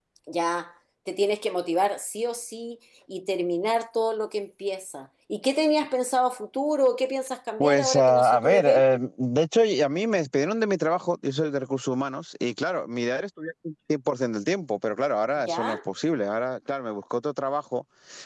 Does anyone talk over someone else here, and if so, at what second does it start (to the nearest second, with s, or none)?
8 s